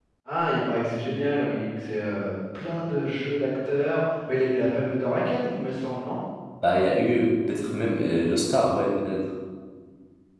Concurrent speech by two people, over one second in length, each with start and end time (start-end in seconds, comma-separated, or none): none